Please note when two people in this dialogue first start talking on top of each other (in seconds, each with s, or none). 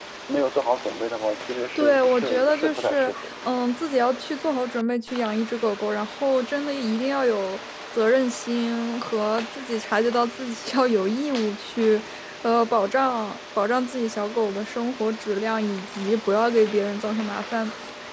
1.8 s